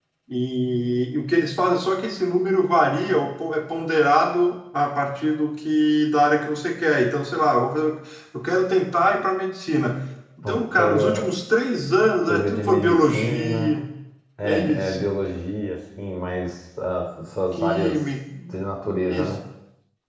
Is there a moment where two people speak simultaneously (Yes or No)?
Yes